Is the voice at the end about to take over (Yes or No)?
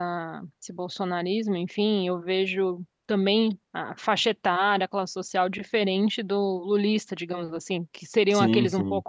No